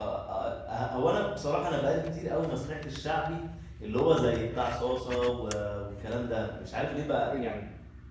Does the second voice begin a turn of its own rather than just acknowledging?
No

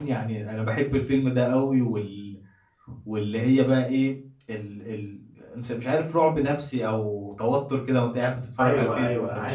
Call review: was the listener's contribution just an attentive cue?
No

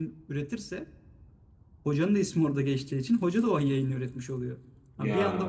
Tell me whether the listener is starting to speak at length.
No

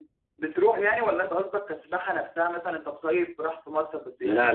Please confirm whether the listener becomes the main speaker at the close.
Yes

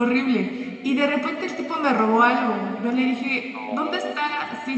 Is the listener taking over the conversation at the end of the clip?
No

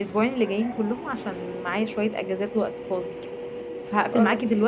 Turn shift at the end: No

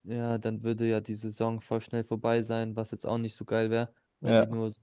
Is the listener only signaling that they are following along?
Yes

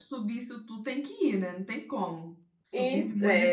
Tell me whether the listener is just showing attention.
No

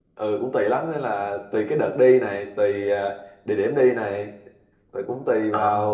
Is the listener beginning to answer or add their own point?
No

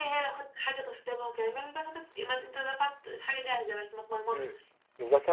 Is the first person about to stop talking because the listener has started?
Yes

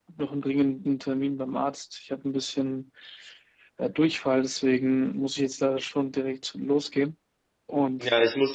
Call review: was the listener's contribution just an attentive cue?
No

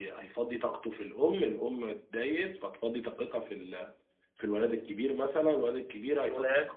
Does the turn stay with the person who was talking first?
Yes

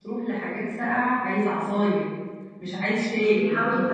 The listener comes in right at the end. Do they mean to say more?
Yes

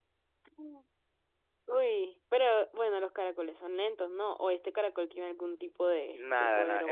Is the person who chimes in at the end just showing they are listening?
No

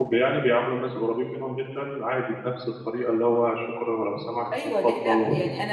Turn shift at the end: Yes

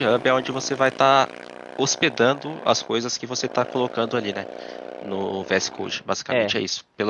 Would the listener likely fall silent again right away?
No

